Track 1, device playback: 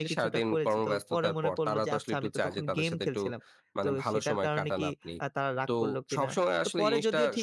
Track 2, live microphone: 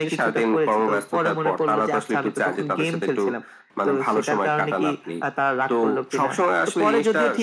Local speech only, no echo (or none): none